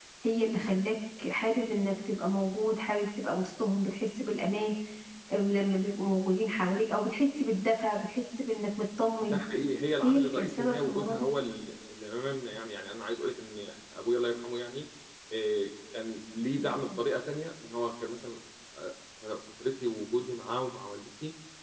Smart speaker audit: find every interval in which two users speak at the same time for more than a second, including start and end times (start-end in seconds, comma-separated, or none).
10.0-11.3